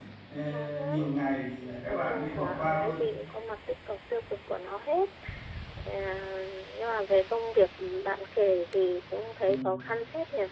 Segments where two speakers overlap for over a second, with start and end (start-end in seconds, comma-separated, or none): 1.9-3.1